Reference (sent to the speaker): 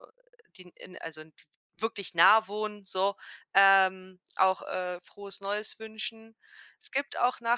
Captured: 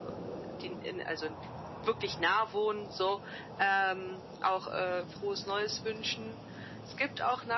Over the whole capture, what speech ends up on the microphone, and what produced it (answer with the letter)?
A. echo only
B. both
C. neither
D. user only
A